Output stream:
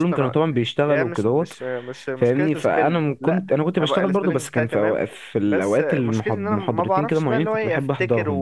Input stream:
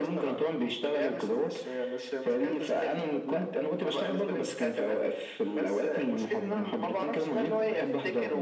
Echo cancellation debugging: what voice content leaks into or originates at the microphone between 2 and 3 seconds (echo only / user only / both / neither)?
echo only